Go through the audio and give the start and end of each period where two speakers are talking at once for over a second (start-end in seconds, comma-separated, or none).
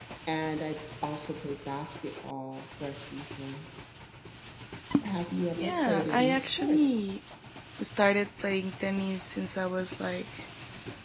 5.6-7.1